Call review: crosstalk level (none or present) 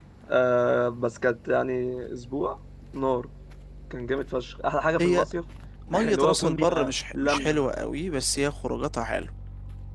present